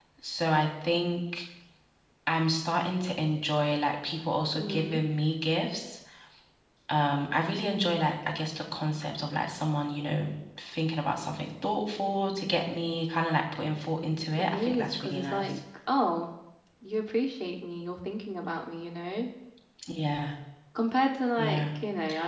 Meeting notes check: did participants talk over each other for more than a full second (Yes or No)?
Yes